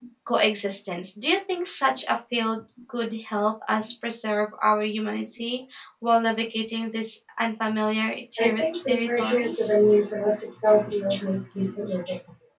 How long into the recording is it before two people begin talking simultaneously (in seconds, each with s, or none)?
8.4 s